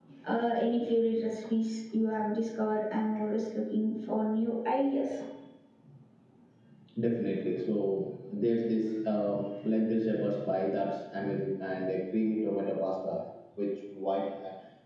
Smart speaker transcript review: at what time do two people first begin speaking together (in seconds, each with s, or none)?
none